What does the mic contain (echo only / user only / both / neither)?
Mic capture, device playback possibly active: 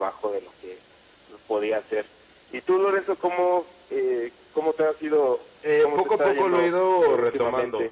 both